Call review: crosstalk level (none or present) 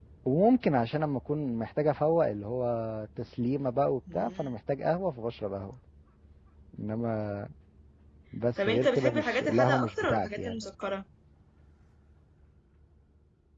present